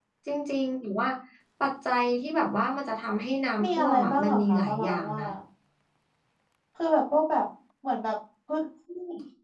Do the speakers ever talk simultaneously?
Yes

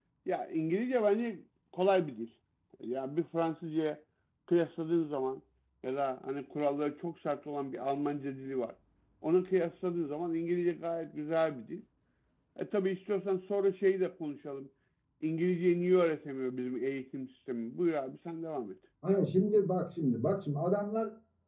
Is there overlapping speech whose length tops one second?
No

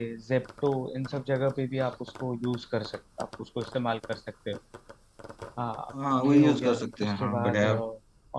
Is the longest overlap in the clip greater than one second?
Yes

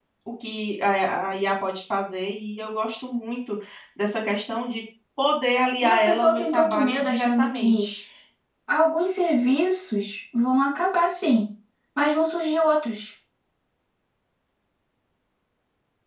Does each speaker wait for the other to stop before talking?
No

